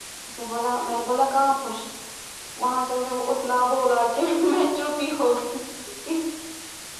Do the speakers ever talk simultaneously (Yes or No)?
No